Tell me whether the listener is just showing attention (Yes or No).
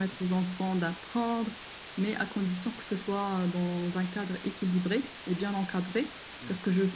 Yes